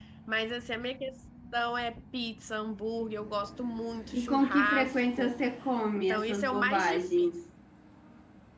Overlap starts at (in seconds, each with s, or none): 4.1 s